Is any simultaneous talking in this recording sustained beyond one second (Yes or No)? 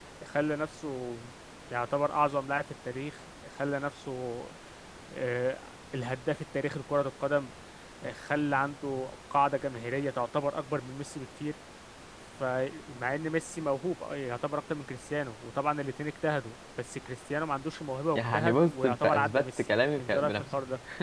Yes